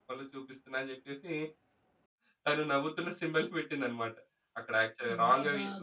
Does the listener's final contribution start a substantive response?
No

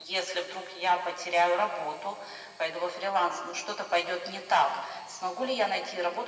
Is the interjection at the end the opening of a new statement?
No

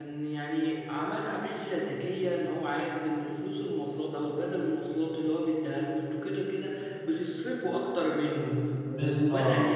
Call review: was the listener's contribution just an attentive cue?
Yes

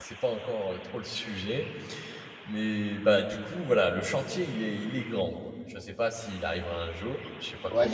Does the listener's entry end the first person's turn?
Yes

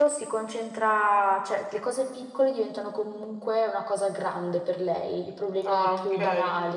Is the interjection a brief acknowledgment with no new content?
Yes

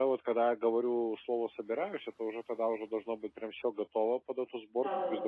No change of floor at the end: Yes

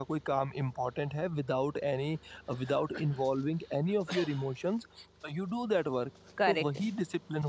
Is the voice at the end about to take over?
No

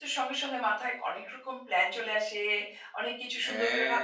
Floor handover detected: No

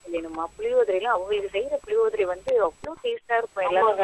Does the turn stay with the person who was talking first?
No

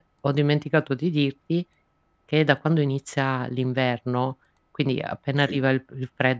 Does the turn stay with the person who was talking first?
Yes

